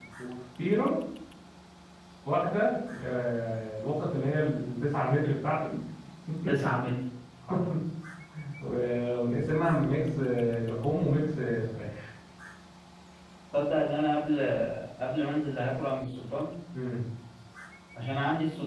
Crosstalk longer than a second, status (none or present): none